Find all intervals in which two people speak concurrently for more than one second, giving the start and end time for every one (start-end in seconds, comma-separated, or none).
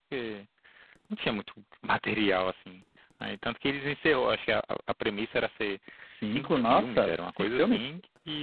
6.2-7.9